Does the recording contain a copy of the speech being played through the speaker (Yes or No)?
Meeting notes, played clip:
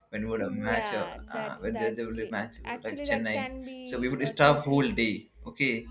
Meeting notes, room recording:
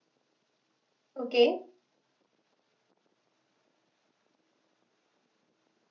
No